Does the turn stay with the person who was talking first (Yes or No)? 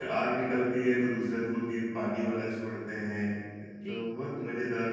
Yes